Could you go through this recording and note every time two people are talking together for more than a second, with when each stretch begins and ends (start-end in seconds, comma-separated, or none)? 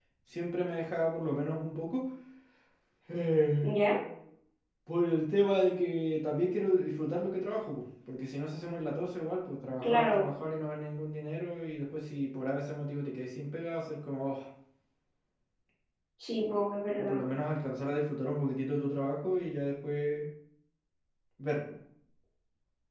none